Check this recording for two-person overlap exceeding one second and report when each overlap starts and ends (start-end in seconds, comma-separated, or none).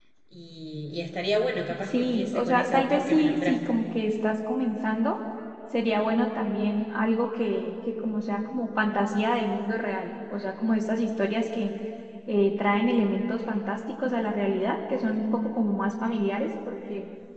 1.9-3.8